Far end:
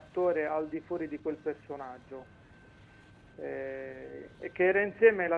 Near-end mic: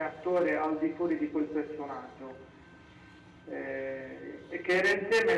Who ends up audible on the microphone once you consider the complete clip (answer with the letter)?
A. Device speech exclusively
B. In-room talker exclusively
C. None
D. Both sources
A